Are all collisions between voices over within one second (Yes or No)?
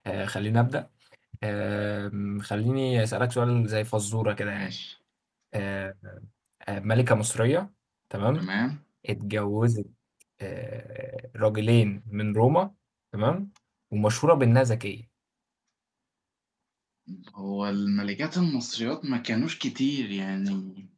Yes